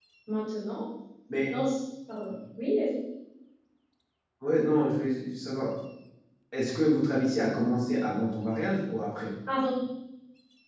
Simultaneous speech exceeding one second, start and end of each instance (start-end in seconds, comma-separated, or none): none